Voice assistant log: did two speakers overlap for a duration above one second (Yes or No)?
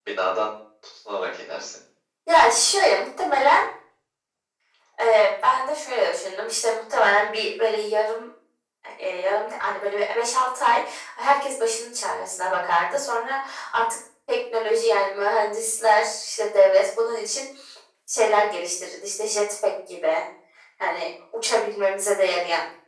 No